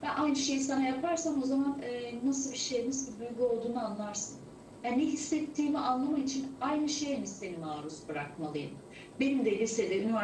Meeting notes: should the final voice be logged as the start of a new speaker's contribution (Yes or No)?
No